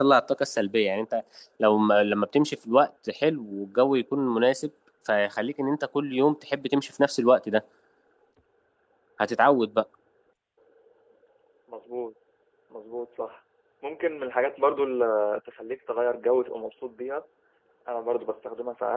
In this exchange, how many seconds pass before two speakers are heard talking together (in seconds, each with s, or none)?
none